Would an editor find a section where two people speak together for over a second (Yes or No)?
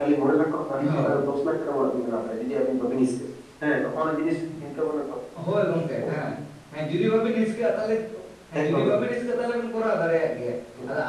No